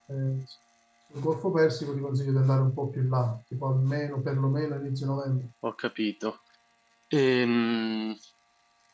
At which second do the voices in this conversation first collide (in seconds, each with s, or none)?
none